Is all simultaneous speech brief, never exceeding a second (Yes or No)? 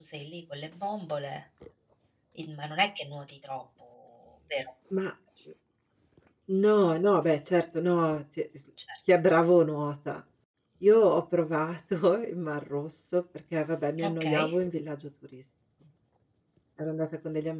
Yes